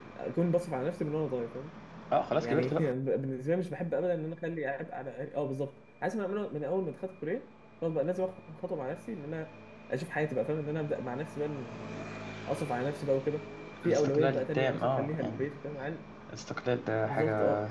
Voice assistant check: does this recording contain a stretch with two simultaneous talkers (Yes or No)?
Yes